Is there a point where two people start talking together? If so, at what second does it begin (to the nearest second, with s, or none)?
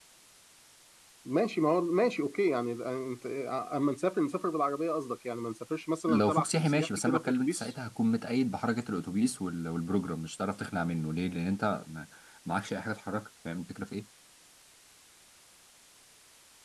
6 s